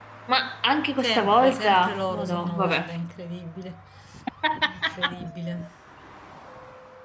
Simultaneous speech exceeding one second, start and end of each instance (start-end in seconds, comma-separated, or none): 1.0-2.9